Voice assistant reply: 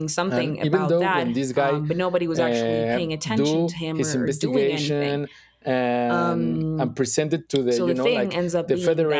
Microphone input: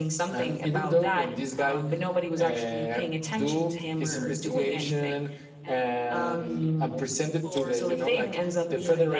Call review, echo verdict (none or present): present